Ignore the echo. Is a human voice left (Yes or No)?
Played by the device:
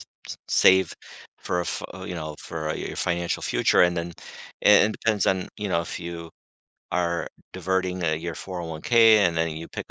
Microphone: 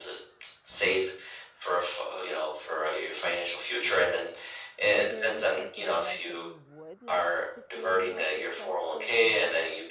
Yes